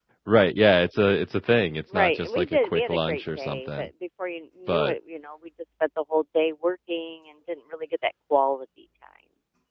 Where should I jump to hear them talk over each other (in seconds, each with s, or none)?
1.9 s